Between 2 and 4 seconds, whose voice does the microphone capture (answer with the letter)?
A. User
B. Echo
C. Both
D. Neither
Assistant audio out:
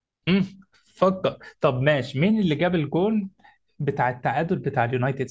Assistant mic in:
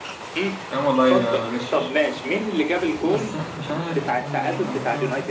C